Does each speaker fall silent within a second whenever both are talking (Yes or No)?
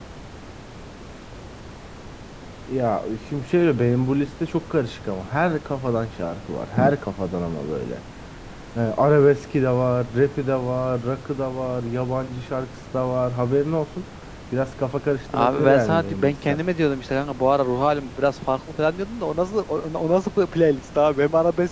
No